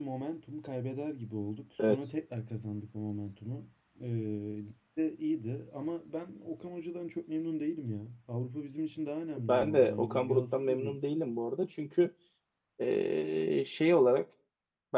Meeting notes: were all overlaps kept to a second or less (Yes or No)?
No